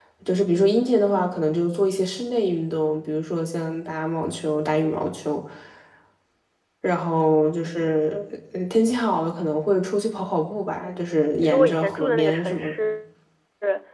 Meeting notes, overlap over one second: present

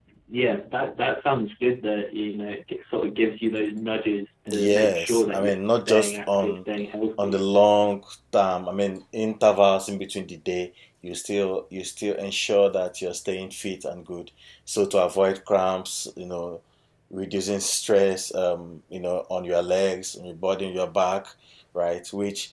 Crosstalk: present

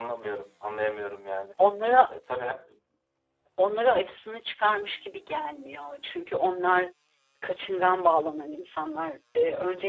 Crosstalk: none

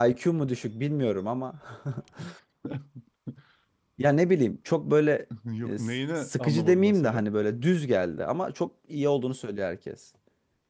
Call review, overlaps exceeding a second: present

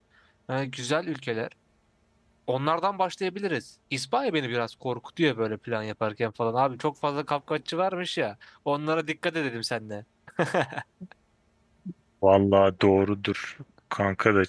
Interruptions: none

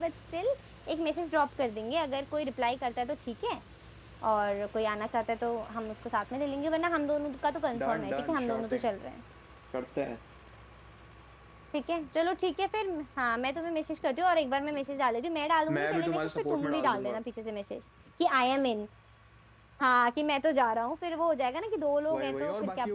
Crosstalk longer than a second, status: present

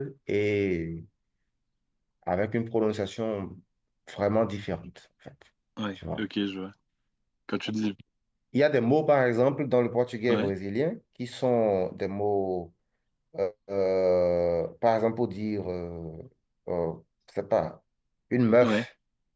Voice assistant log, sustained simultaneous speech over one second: none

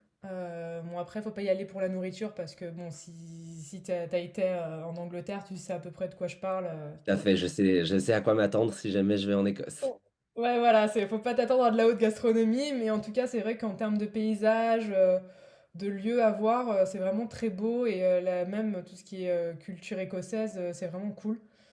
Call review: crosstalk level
none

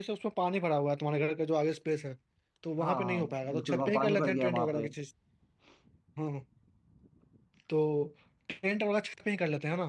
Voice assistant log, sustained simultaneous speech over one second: present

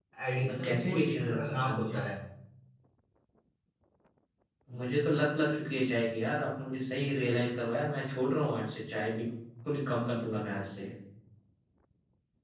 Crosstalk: present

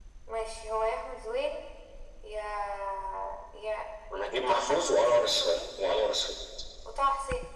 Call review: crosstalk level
present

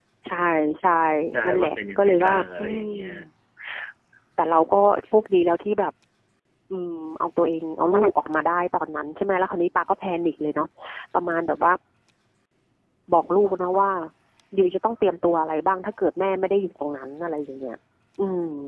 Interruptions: present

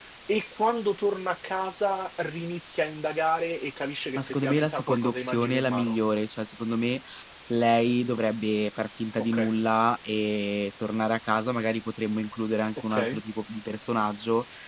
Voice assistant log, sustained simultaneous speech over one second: present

